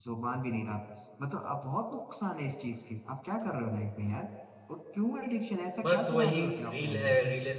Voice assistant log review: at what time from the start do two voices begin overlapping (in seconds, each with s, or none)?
5.8 s